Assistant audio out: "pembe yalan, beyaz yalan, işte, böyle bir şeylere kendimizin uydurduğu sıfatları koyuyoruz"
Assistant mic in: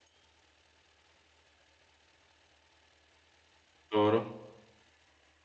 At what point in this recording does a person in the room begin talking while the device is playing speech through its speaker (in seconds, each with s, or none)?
3.9 s